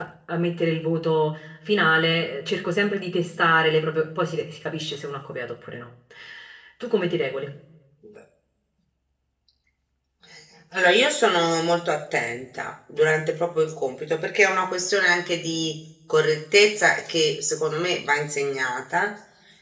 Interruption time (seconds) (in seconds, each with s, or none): none